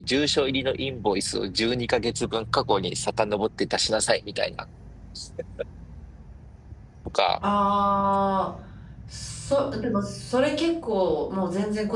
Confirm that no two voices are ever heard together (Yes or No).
Yes